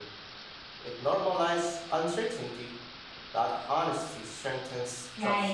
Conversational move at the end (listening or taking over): taking over